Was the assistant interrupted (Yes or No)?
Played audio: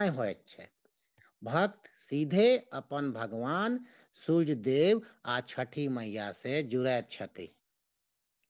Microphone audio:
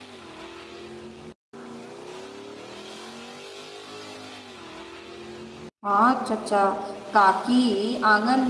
Yes